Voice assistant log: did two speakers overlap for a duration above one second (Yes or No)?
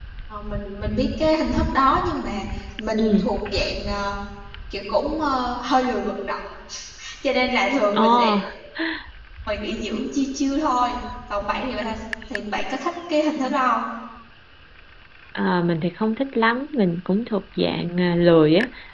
No